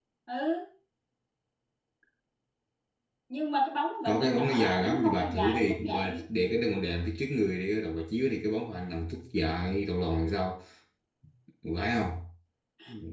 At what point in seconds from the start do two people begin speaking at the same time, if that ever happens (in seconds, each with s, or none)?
4.0 s